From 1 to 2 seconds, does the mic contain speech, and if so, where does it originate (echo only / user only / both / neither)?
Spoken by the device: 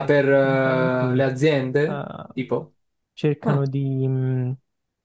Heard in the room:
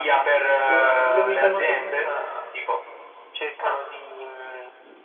both